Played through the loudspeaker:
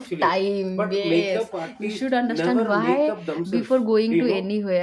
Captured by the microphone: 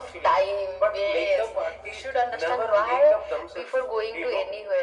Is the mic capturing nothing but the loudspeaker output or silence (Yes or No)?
Yes